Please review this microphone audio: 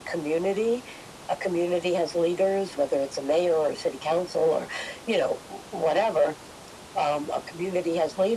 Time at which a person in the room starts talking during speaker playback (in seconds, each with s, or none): none